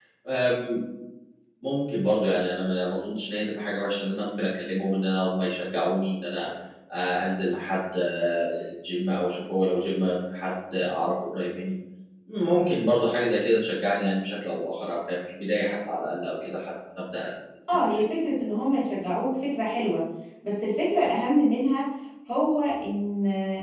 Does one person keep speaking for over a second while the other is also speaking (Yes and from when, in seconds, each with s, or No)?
No